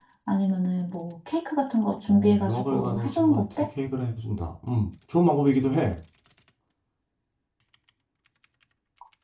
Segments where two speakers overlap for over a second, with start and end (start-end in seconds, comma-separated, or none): 2.1-3.5